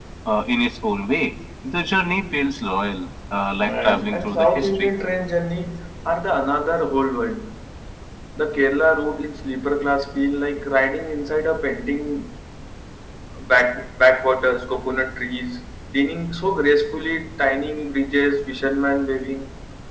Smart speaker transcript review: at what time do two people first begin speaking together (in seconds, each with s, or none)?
3.6 s